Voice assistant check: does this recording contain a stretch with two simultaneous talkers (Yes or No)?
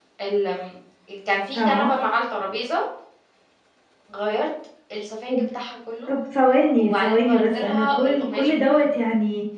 Yes